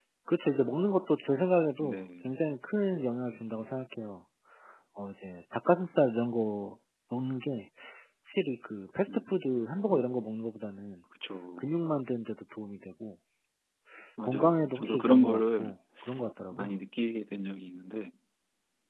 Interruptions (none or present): present